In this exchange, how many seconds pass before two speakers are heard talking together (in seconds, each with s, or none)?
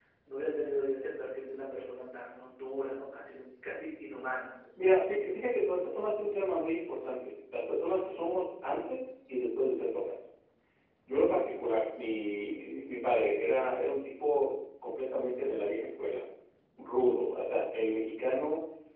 none